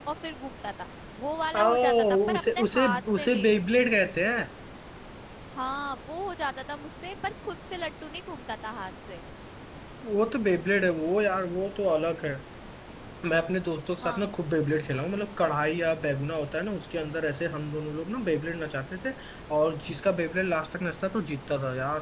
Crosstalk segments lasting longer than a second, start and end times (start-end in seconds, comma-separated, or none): 1.6-3.7